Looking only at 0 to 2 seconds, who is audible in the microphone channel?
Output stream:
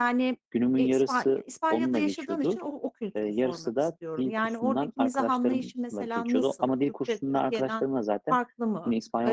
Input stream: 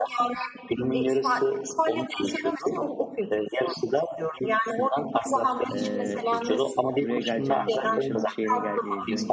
echo only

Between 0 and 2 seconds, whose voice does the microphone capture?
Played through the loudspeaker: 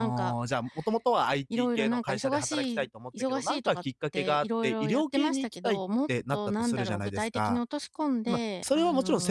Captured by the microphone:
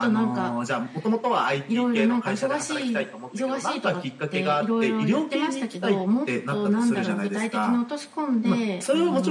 echo only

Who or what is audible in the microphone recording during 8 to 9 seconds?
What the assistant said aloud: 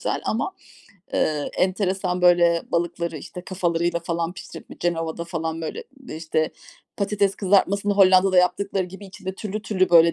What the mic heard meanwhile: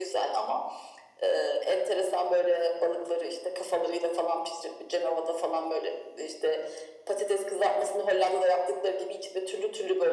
echo only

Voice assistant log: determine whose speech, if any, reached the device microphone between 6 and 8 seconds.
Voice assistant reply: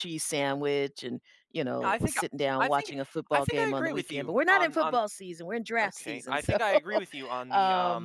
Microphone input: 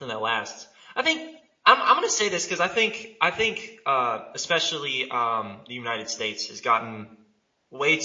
user only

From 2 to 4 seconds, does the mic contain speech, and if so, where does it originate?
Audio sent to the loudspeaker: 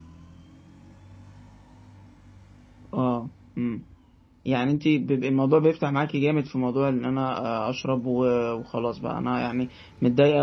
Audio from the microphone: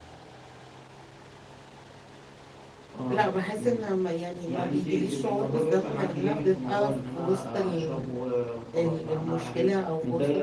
both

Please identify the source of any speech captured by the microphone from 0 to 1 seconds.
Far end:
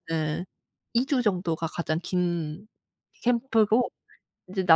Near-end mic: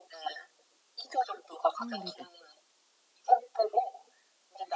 echo only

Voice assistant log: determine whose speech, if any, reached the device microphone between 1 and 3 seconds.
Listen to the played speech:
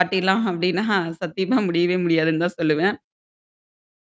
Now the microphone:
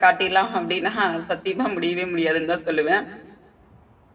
echo only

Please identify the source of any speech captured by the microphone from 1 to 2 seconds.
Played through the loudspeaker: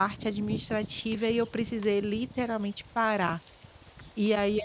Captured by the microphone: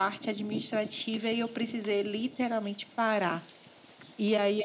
echo only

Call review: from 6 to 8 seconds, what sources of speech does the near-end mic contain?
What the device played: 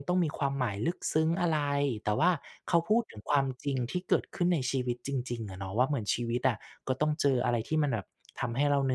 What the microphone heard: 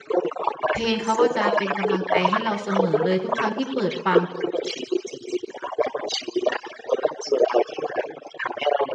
echo only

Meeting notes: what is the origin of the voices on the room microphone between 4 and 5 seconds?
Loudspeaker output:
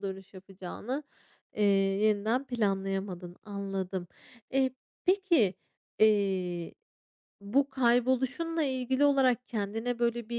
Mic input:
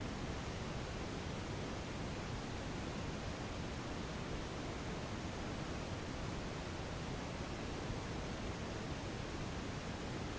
neither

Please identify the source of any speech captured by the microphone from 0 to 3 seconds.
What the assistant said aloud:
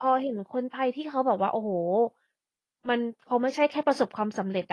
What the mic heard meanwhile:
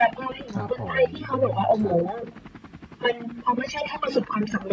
both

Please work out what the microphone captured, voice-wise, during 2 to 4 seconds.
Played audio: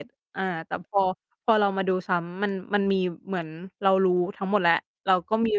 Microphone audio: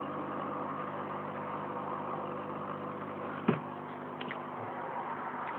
neither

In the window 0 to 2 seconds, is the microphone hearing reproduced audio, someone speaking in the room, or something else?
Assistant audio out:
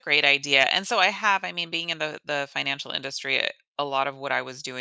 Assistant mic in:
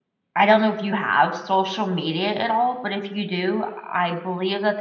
user only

